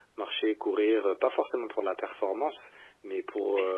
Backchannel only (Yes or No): Yes